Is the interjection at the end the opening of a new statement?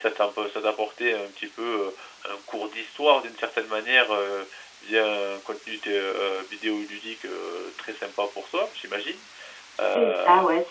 Yes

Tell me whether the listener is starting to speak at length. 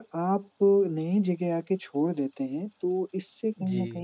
No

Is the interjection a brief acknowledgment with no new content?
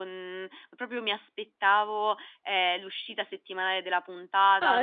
Yes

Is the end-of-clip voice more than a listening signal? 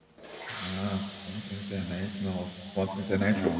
No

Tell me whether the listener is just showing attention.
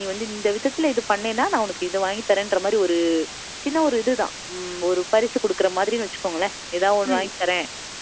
Yes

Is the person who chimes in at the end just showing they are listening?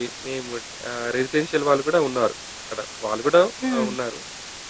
Yes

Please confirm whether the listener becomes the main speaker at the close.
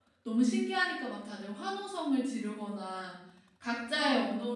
No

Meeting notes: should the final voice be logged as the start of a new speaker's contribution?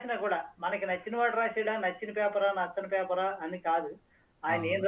No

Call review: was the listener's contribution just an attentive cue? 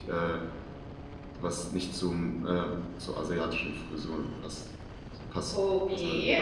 No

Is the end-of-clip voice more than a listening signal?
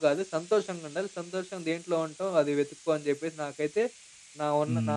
Yes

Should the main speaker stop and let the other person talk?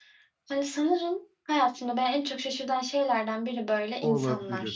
Yes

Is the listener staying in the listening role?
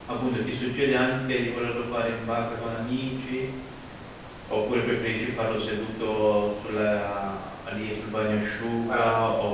Yes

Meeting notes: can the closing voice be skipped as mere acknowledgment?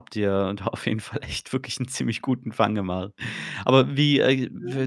Yes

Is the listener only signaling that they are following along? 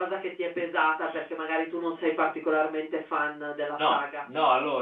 No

